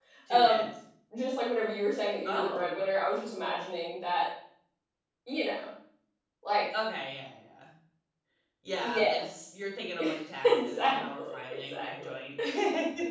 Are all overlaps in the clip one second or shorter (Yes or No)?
No